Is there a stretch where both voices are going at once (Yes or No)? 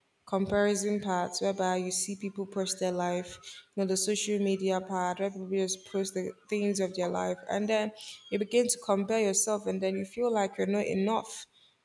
No